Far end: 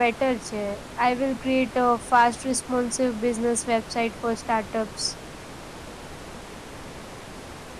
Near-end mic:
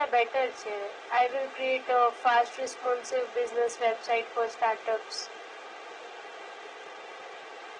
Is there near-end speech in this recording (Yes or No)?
No